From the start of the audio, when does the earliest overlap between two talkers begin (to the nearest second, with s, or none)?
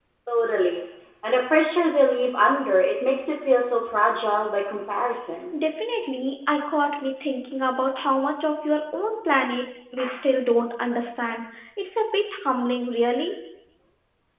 none